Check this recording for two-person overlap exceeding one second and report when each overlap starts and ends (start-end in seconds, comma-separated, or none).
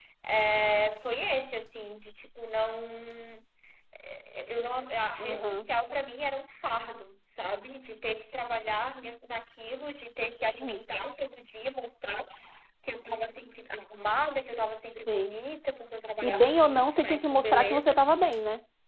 16.2-17.9